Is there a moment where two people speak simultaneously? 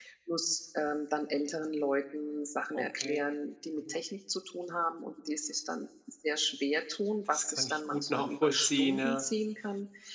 Yes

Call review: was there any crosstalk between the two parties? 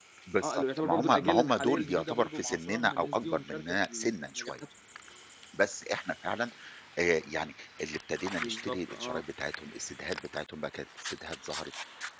Yes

